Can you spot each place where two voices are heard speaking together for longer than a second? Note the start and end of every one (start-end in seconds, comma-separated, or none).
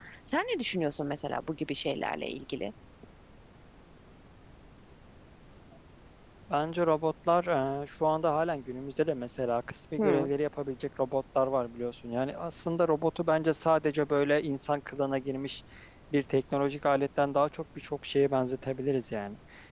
none